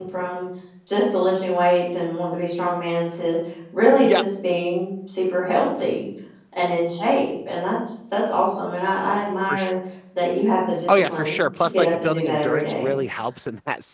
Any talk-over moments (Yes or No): Yes